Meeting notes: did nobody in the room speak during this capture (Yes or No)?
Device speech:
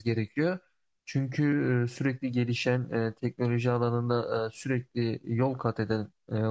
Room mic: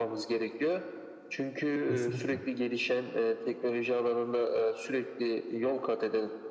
No